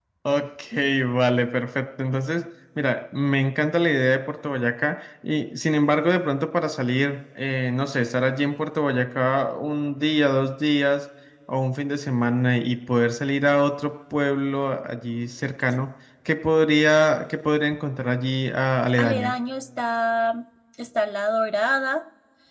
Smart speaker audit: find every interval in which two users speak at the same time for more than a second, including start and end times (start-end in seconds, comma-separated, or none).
none